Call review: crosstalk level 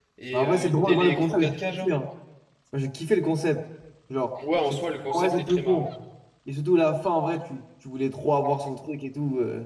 present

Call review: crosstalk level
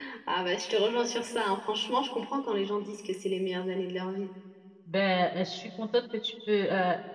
none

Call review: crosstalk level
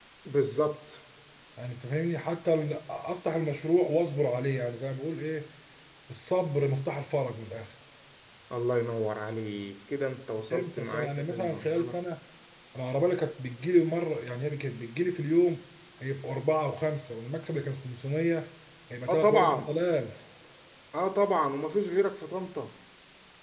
present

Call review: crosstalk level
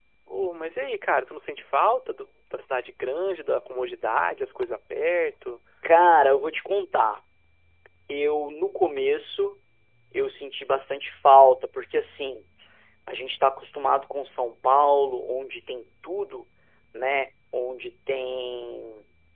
none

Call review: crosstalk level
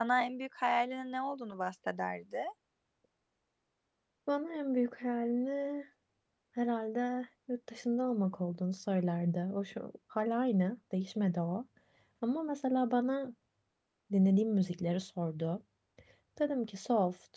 none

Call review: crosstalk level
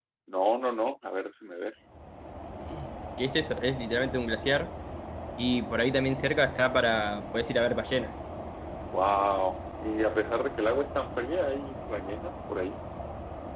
none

